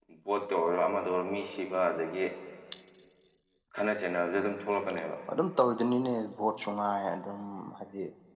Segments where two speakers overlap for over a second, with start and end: none

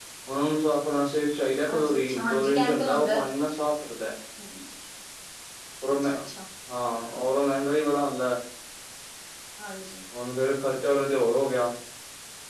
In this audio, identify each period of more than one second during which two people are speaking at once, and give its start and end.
1.7-3.2

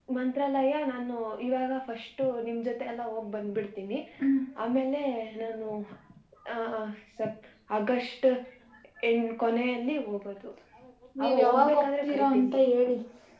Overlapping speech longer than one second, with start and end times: 11.2-12.7

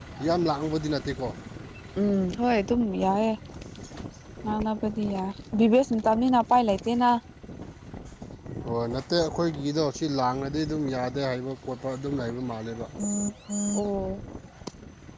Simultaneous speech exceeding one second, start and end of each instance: none

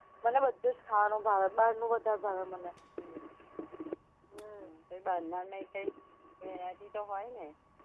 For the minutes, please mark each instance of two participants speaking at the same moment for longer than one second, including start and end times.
none

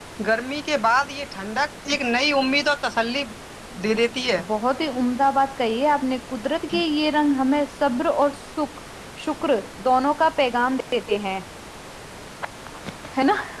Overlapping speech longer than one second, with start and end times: none

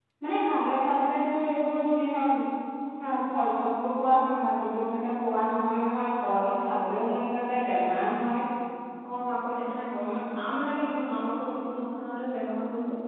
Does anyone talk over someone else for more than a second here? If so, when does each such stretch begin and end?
none

